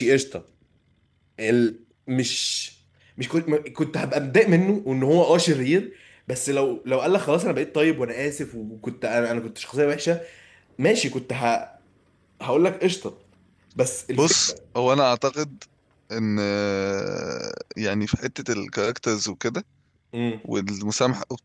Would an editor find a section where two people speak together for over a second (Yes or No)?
No